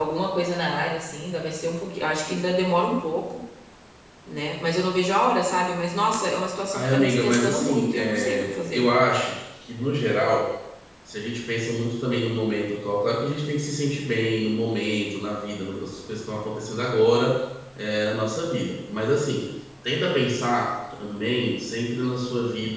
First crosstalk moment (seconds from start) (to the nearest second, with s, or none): 7 s